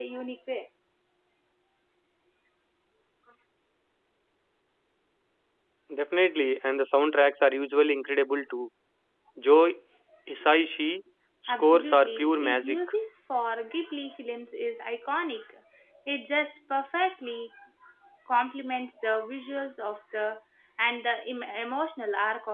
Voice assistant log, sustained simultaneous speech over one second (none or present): present